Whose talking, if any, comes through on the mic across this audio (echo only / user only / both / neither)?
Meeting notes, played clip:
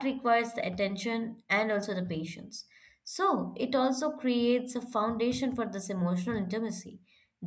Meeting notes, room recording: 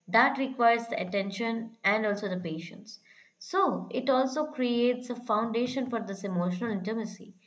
echo only